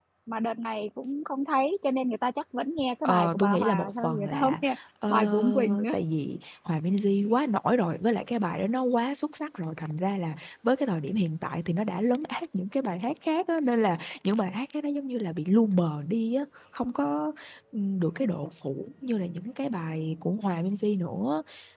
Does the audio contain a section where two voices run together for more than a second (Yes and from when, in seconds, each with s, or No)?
Yes, from 3.0 s